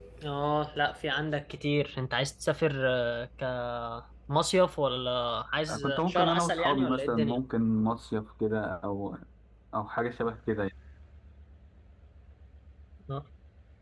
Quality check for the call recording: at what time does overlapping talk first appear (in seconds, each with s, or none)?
5.7 s